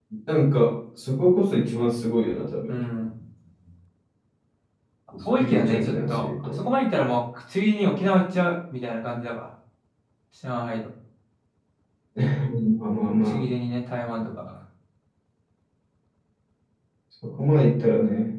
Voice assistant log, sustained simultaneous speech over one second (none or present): present